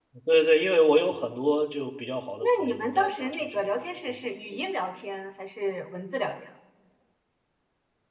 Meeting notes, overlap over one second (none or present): present